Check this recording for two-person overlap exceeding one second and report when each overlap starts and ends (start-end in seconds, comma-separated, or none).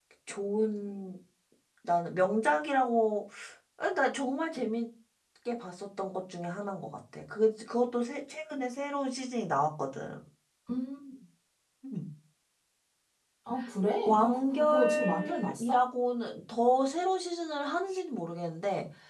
14.1-15.8